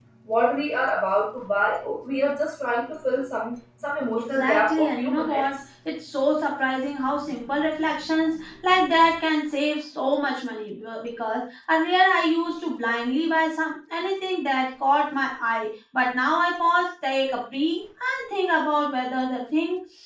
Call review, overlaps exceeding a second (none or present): present